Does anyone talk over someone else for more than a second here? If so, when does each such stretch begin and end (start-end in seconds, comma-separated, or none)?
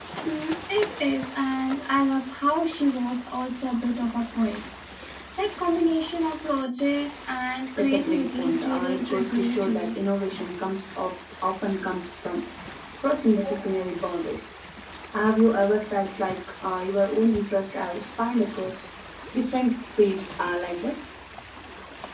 7.8-9.9